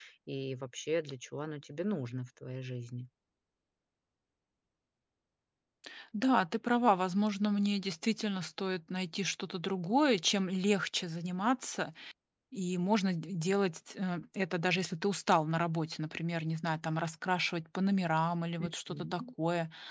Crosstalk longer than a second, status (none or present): none